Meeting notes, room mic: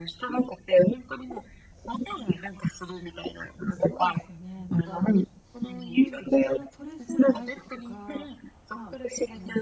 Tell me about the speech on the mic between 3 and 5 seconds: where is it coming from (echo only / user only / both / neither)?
both